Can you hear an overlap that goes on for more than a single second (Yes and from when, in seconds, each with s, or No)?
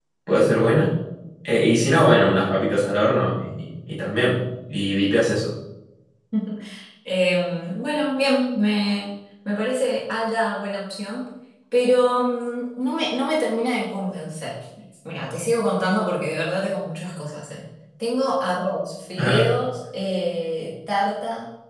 No